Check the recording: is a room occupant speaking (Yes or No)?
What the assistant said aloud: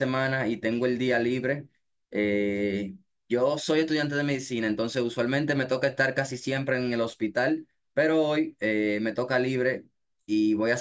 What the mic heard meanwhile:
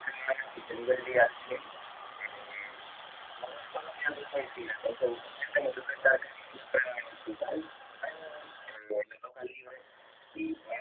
No